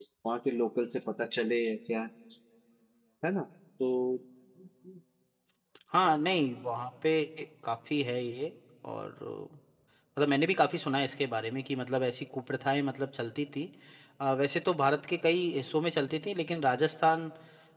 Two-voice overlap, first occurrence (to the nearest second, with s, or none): none